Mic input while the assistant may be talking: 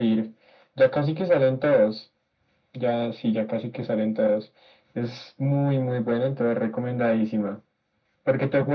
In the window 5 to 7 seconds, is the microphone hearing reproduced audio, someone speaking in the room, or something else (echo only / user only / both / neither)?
echo only